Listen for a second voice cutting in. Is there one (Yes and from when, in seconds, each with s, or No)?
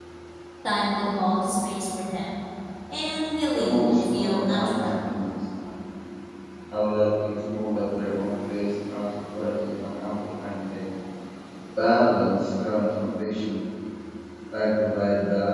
Yes, from 3.5 s